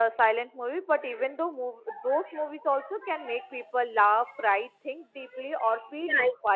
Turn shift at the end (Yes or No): Yes